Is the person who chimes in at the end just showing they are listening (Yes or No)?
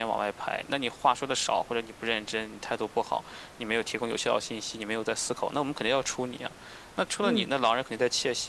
Yes